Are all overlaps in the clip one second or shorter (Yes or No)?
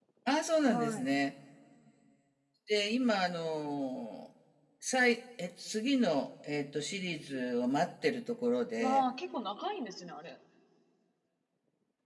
Yes